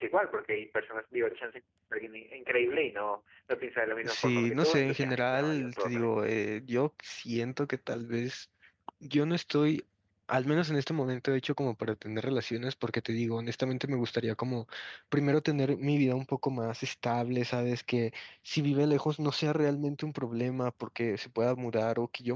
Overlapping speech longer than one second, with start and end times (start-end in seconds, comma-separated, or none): 4.0-6.1